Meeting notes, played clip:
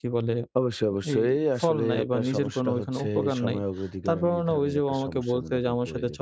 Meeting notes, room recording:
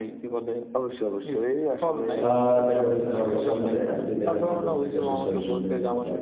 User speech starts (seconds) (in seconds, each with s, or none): 2.3 s